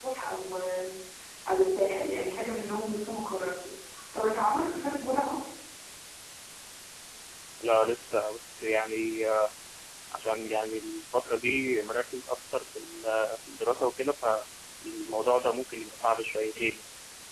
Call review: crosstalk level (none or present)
none